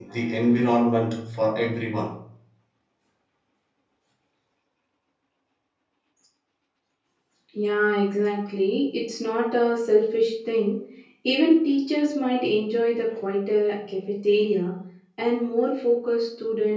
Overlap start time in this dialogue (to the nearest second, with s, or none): none